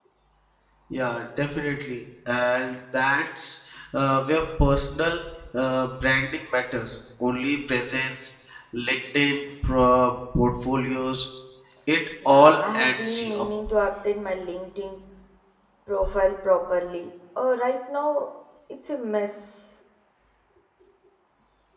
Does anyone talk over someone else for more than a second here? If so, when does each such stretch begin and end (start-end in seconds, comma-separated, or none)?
12.2-13.5